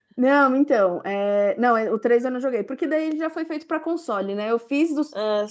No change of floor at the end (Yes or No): Yes